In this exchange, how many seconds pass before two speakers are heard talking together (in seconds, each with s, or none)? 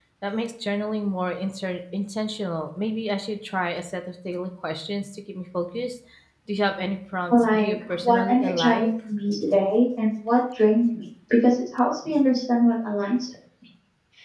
7.3 s